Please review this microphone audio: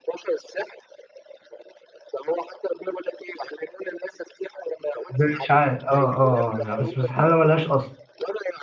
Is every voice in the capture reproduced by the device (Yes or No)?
No